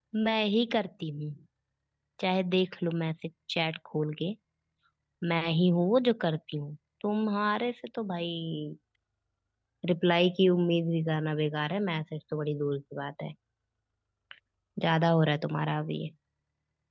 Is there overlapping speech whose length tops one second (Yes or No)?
No